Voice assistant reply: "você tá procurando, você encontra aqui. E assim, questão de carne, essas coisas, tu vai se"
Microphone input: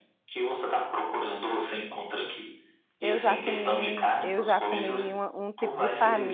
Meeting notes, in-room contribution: present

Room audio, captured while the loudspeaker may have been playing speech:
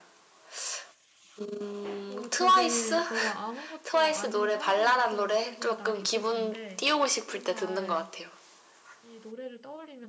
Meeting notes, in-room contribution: present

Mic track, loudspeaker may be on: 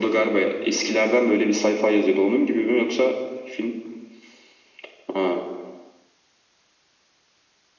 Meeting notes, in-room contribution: none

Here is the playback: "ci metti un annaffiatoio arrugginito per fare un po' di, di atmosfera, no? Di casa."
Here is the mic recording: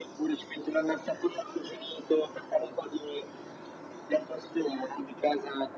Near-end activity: none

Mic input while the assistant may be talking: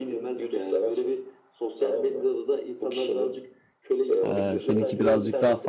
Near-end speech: present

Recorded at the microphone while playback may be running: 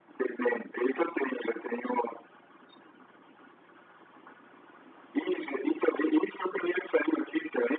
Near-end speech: none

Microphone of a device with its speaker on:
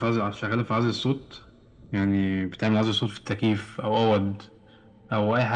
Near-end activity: none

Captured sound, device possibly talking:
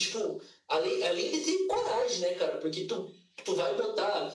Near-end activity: none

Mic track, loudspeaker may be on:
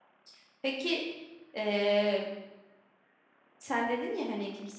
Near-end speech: present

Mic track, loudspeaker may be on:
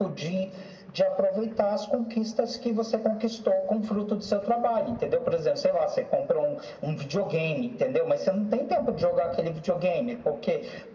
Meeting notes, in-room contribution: none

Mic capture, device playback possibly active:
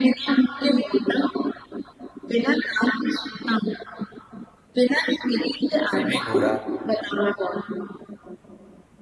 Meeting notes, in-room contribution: present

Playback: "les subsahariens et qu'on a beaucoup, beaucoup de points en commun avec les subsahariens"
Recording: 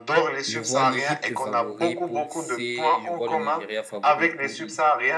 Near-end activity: present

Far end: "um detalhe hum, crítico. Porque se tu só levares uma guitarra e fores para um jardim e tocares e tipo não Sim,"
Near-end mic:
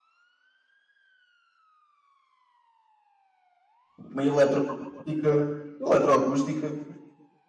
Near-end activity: present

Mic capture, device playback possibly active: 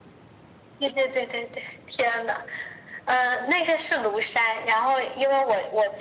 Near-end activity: none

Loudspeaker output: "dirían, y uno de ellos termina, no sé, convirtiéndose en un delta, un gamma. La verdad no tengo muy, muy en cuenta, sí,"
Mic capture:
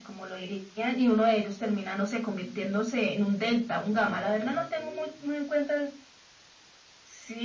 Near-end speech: present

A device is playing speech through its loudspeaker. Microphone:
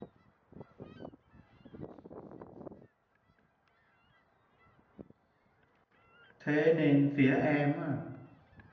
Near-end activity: present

